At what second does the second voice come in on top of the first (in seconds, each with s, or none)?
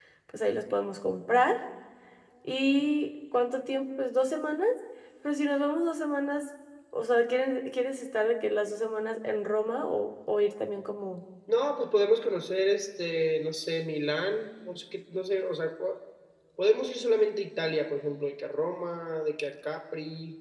none